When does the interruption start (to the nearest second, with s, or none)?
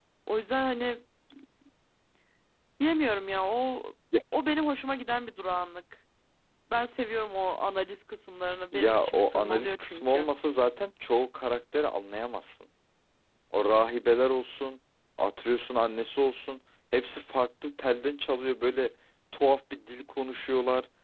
9 s